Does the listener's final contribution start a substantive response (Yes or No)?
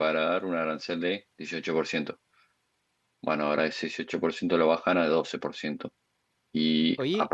No